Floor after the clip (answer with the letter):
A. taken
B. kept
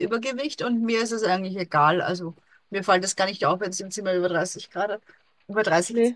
B